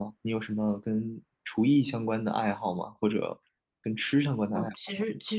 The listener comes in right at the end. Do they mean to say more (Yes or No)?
Yes